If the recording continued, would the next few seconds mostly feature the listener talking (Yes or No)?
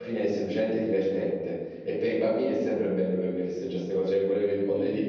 No